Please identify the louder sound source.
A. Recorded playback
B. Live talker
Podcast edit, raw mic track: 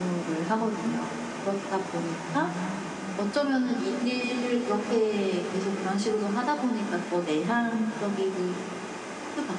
A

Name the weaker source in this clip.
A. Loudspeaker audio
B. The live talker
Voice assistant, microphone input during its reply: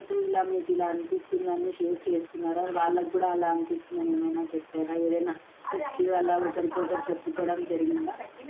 B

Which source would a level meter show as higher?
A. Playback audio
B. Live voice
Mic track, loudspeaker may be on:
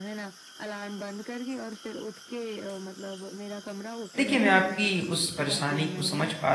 B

